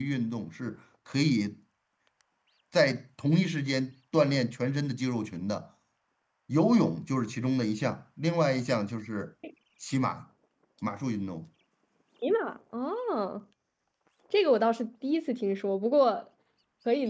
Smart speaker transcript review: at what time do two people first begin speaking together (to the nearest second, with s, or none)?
none